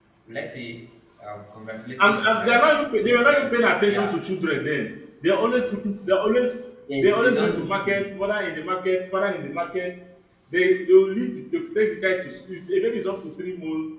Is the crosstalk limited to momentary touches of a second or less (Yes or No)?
No